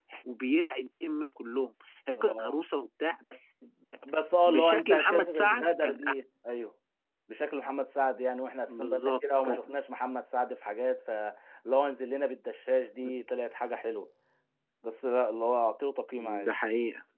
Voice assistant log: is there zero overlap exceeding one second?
No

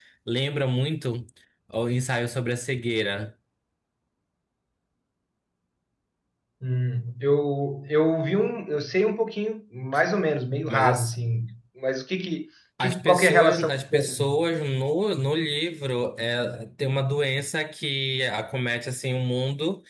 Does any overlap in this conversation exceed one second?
Yes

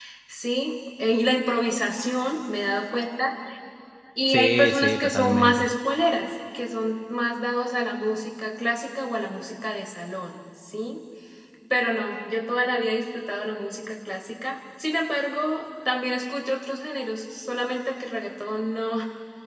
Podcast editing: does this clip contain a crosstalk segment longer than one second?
Yes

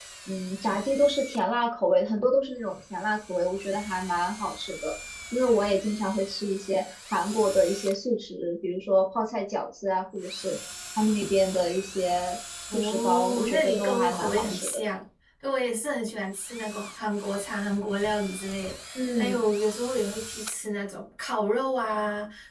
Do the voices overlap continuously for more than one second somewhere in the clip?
Yes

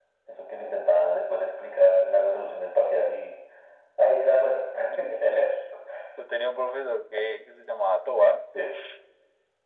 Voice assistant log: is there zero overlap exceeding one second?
Yes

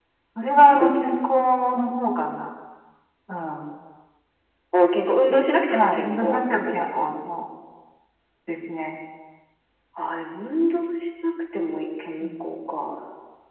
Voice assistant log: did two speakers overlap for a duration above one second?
Yes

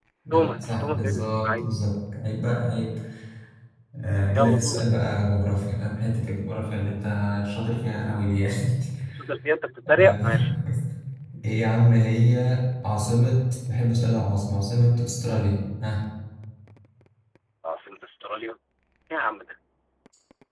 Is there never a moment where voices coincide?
No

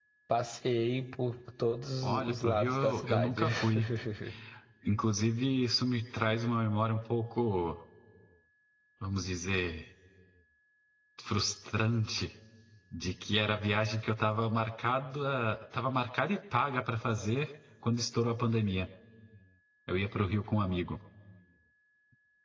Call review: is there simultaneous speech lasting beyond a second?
Yes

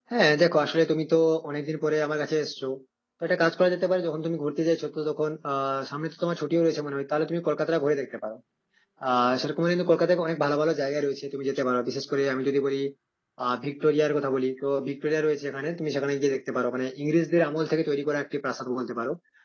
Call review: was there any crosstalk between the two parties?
No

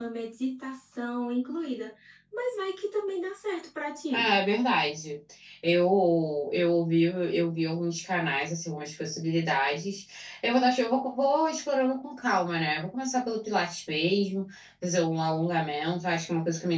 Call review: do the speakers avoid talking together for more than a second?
Yes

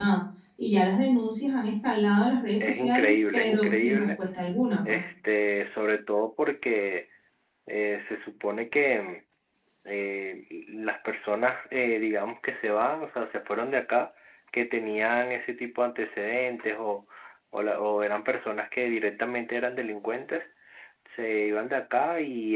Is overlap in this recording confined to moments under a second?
No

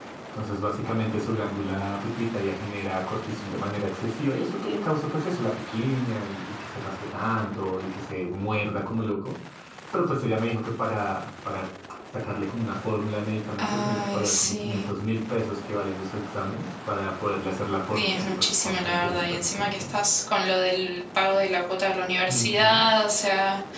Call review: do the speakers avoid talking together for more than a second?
No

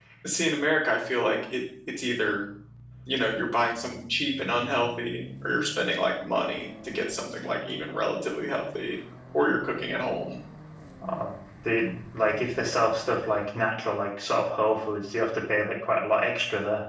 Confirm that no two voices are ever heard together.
Yes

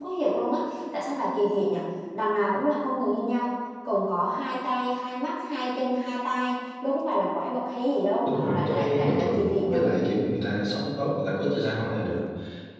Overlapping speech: Yes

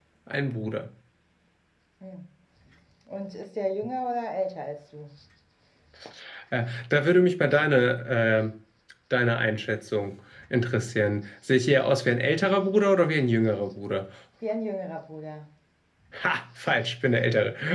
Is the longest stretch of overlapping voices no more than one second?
Yes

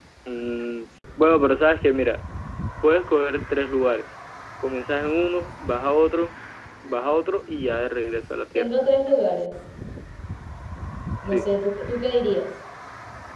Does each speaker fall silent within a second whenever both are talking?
Yes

